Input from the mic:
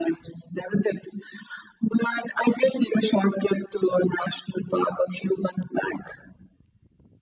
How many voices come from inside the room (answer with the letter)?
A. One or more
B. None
B